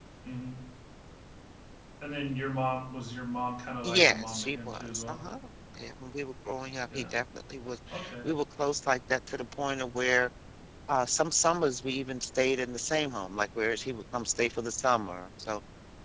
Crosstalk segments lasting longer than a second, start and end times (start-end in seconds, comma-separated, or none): 3.8-5.2